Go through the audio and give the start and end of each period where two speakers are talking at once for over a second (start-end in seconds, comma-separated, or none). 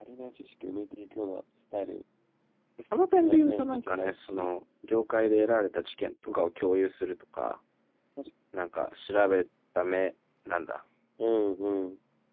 3.2-4.5